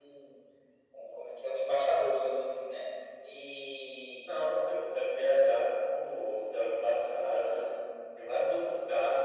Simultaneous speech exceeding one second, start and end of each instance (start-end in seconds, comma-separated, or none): none